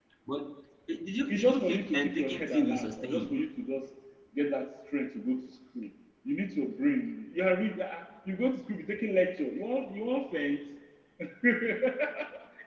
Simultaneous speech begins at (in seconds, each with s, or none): 1.3 s